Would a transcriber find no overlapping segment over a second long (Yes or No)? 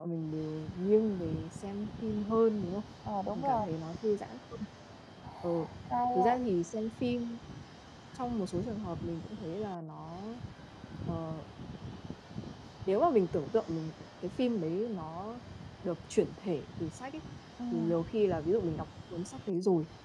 Yes